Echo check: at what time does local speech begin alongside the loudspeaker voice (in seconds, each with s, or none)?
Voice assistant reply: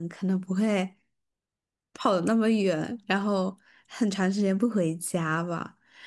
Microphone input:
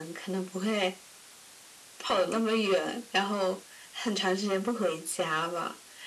none